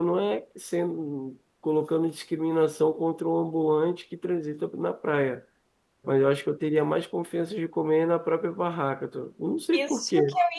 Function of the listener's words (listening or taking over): taking over